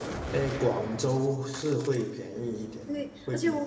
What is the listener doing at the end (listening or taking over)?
taking over